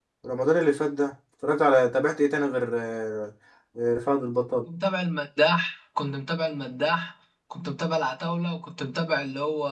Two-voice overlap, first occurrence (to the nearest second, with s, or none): none